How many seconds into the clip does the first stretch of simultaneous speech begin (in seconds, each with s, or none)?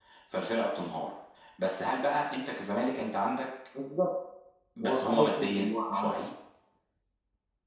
4.8 s